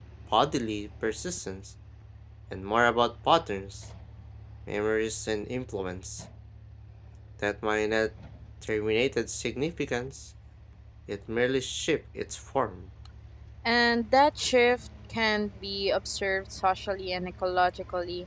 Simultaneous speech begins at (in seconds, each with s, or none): none